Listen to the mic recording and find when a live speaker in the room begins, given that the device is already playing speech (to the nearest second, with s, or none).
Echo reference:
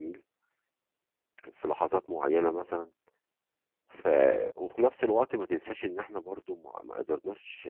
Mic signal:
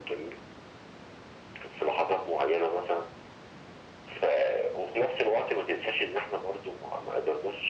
none